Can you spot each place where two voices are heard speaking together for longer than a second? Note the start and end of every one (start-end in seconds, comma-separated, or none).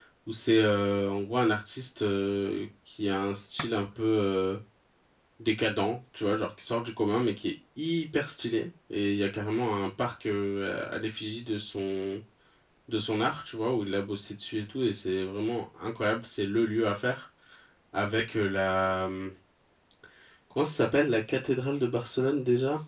none